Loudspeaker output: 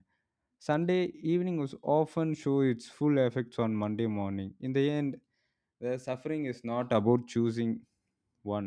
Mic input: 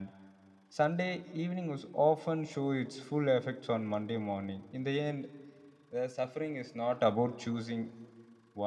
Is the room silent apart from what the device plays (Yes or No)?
Yes